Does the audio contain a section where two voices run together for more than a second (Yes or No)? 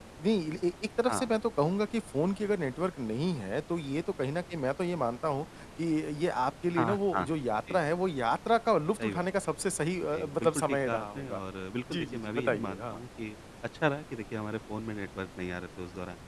Yes